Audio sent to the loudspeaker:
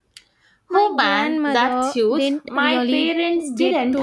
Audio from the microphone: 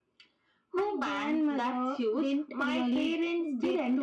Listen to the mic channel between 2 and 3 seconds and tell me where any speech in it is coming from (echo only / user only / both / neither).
echo only